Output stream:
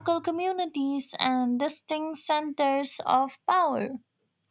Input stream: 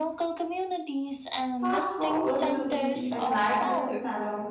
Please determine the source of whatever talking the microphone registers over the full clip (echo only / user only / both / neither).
both